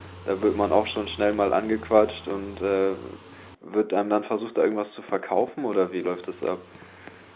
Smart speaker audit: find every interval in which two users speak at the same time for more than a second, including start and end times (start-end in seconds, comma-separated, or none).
none